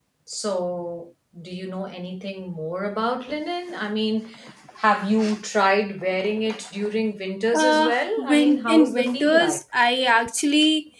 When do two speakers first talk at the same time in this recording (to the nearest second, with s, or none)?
8 s